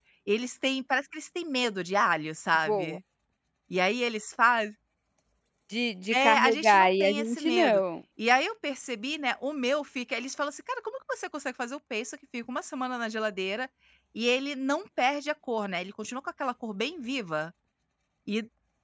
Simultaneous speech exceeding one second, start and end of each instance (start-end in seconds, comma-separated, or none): 6.1-7.8